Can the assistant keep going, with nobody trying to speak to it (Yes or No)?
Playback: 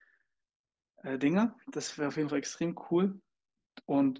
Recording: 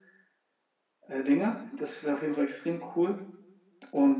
Yes